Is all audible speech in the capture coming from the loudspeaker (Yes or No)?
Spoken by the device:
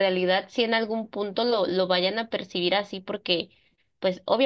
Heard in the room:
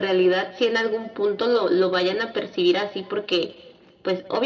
Yes